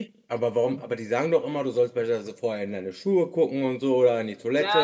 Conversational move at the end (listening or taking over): taking over